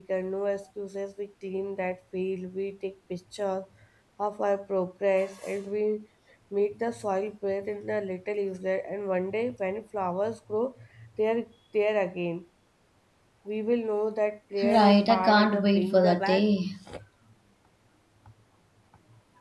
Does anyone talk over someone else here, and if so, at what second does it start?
14.6 s

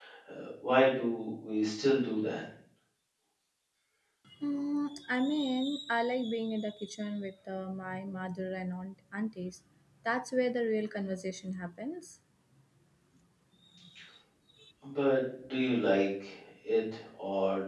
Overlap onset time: none

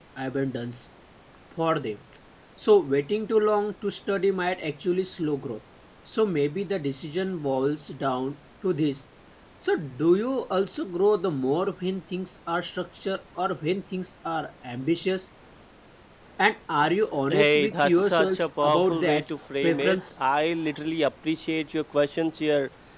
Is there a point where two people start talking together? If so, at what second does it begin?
17.3 s

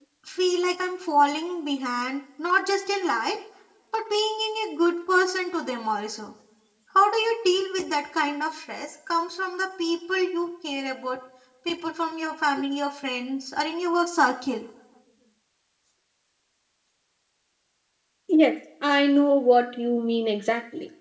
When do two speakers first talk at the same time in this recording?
none

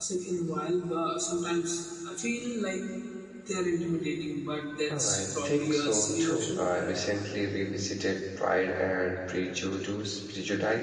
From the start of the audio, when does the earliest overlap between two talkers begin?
4.9 s

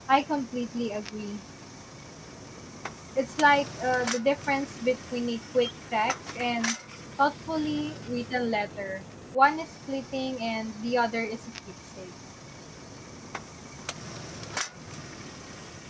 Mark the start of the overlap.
none

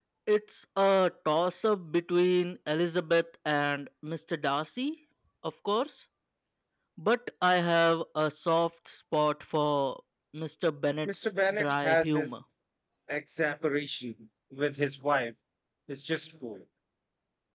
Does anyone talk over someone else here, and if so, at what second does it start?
11.1 s

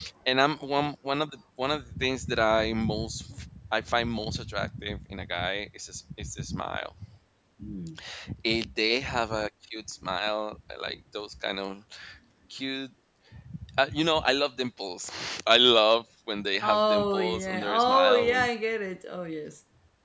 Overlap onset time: 16.6 s

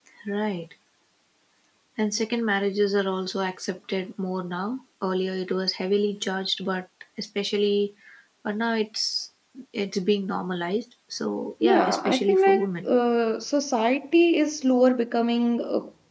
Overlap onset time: 11.6 s

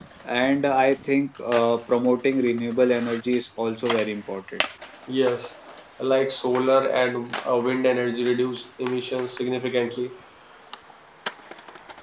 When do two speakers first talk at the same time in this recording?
none

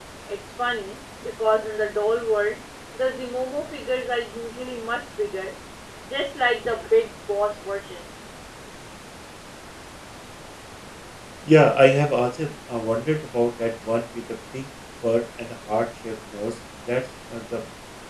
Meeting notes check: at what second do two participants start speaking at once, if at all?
none

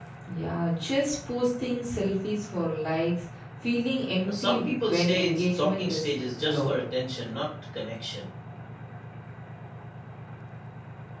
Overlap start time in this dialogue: 4.2 s

